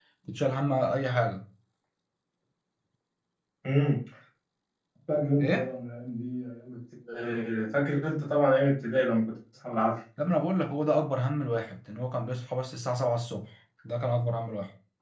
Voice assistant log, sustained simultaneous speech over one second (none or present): none